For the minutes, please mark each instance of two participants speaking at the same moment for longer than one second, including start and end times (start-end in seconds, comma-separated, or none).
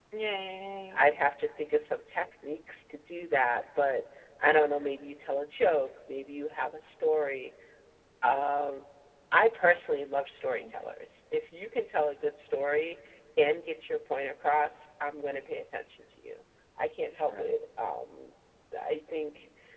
none